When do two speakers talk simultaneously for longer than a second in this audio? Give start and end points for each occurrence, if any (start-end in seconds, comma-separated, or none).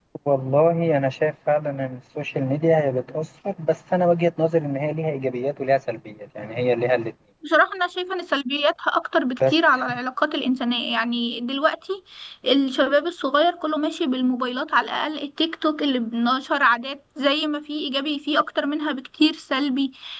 none